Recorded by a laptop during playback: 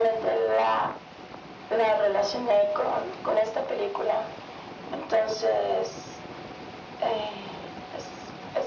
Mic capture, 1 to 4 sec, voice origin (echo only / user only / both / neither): echo only